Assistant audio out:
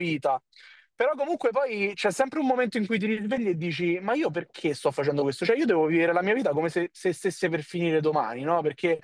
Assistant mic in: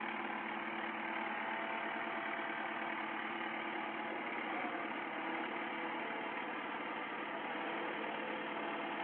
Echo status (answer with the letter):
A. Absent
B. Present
A